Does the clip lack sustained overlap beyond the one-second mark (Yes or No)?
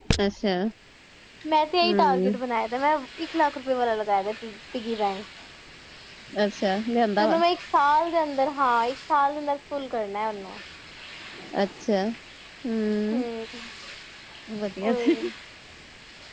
Yes